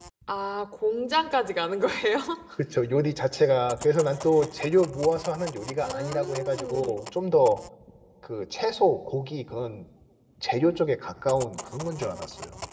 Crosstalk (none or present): present